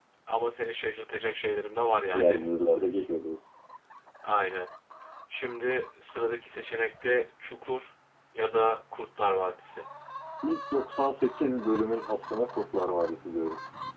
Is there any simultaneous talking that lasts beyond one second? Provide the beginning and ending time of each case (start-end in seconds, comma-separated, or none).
none